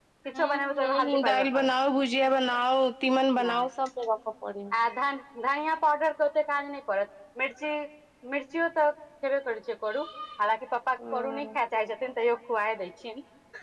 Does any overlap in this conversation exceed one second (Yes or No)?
Yes